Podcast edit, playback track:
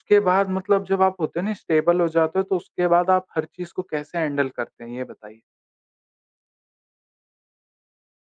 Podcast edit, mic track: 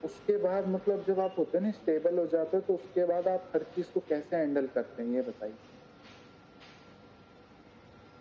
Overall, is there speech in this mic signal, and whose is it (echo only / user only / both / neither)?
echo only